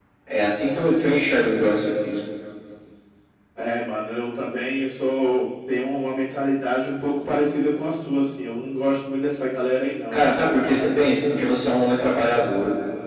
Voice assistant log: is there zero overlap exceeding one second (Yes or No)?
Yes